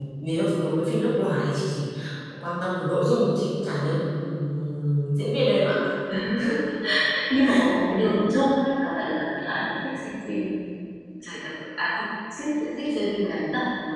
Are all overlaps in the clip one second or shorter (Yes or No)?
Yes